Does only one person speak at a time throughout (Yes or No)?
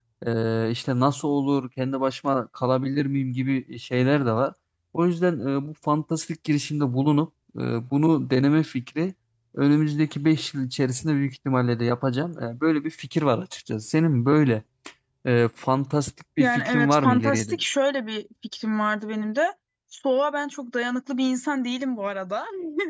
No